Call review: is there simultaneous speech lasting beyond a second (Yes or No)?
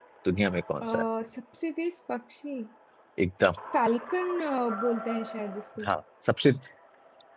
No